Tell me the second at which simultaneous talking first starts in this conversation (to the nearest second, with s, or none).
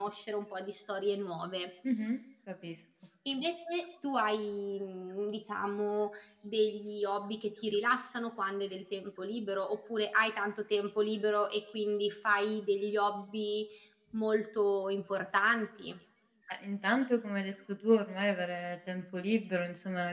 none